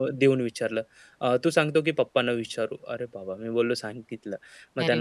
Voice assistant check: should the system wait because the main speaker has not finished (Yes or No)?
Yes